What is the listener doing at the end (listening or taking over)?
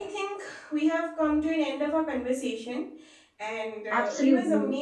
listening